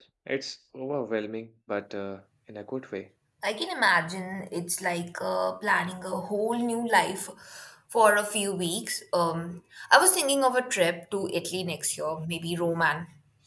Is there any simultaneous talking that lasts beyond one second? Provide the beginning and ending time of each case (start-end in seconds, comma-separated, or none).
none